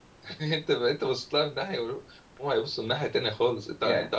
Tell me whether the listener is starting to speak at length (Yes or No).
No